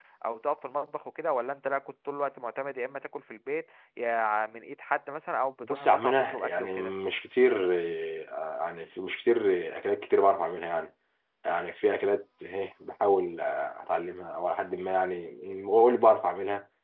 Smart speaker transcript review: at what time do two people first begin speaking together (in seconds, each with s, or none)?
5.6 s